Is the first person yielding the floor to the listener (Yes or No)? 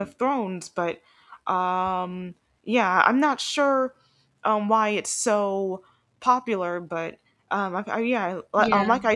No